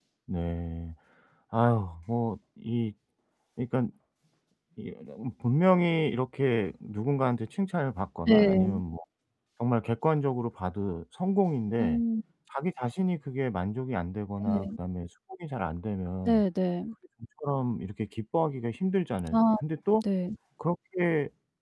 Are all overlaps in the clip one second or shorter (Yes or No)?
Yes